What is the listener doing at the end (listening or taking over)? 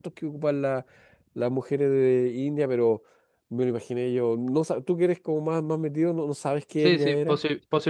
taking over